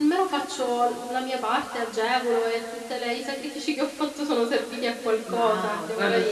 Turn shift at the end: Yes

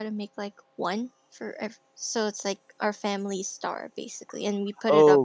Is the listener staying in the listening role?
No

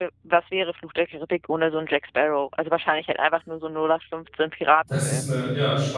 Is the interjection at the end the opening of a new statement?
Yes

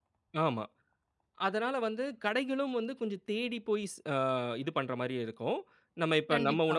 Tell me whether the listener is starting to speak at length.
No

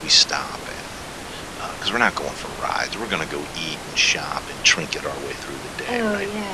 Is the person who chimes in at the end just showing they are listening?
No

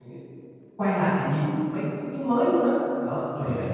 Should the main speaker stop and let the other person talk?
No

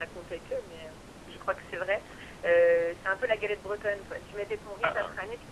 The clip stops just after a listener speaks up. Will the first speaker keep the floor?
Yes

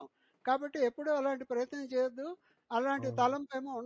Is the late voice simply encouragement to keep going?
Yes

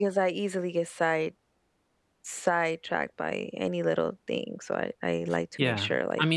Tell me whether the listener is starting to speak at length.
Yes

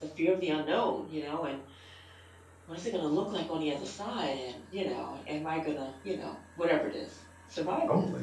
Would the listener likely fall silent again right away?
No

